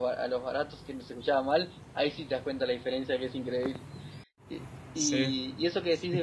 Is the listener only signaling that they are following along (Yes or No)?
Yes